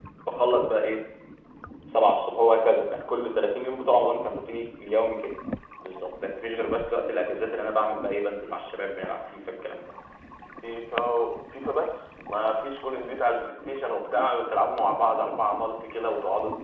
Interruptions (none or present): none